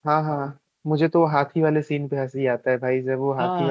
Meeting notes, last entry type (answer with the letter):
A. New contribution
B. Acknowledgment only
A